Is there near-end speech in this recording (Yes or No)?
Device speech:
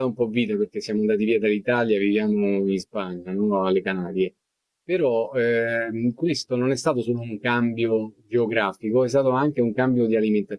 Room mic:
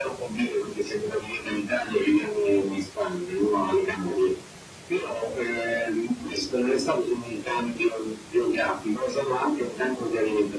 No